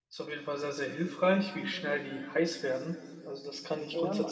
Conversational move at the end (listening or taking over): taking over